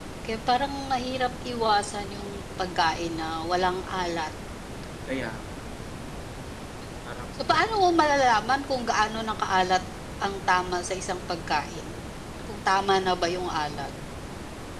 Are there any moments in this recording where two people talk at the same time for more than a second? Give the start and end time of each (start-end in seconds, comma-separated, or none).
none